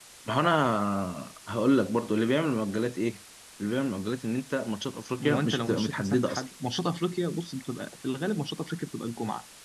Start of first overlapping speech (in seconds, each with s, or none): 5.2 s